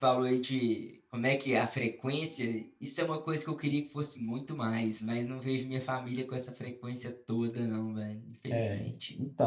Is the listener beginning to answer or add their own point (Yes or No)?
Yes